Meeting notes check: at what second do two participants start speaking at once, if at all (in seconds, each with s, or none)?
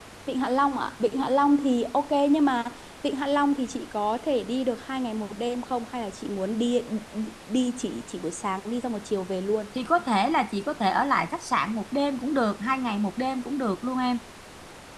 none